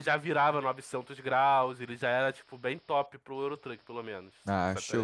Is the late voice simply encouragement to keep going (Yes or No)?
No